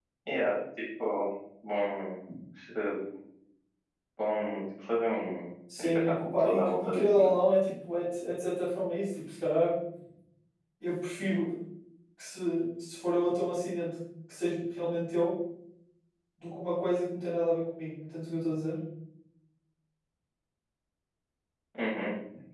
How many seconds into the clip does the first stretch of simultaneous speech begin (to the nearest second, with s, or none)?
6 s